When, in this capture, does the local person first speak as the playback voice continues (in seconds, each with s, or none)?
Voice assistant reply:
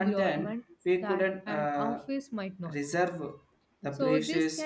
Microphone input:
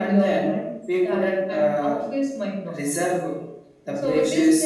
none